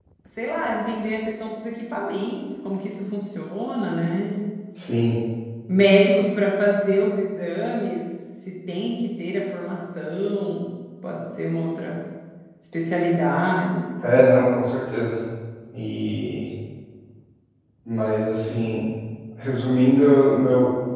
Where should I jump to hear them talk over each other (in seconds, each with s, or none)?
none